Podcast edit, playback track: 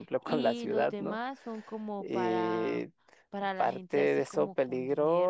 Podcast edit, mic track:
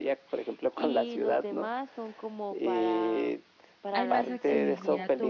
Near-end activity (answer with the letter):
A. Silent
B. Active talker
B